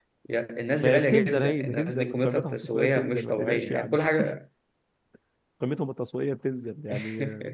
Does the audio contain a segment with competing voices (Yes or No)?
Yes